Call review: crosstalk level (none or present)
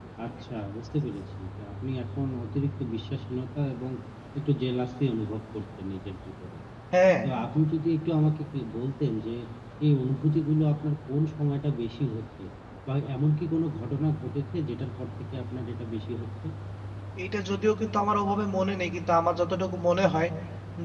none